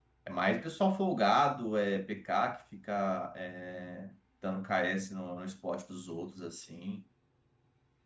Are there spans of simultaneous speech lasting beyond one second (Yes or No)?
No